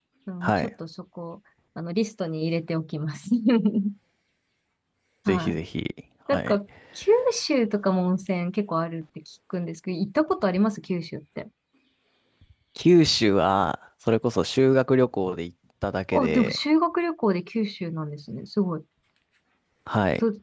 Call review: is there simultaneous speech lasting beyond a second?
No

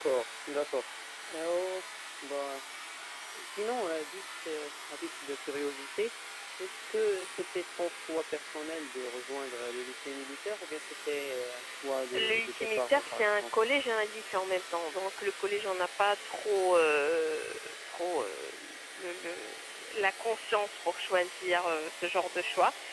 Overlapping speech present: Yes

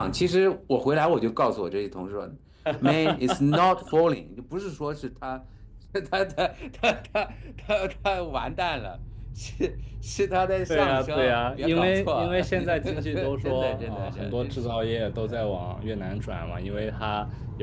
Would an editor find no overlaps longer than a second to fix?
No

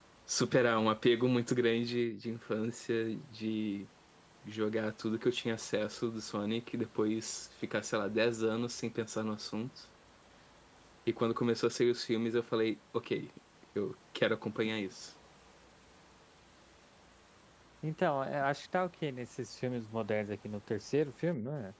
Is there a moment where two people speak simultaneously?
No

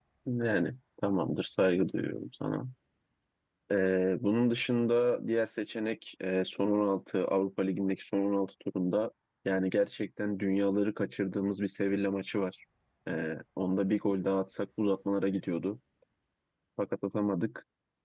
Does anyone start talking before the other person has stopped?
No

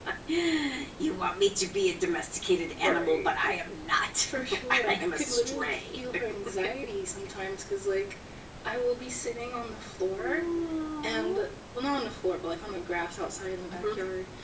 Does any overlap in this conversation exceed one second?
Yes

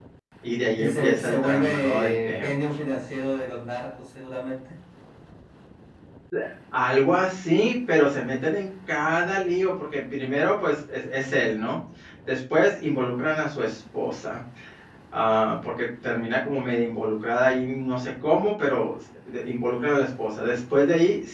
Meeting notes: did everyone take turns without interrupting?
No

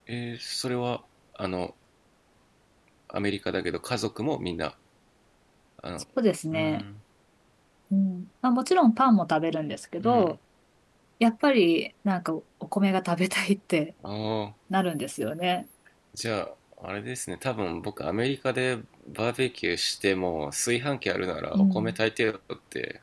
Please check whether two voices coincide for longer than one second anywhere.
No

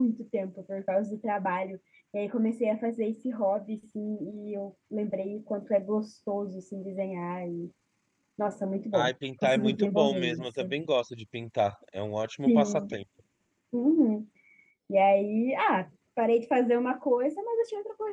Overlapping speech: Yes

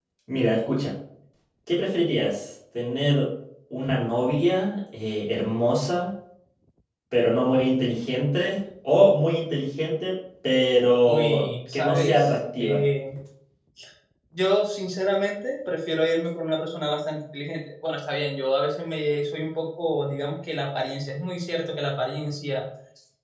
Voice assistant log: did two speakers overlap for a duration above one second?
Yes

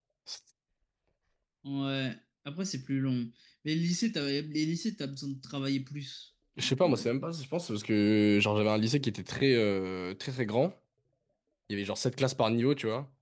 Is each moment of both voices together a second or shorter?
Yes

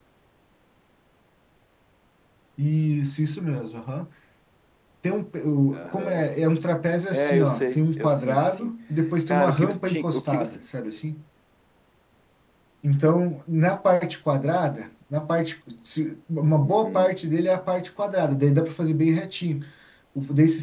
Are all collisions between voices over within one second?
No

